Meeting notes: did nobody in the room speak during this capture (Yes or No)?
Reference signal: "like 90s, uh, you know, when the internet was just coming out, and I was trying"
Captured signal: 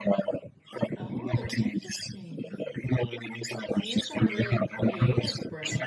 No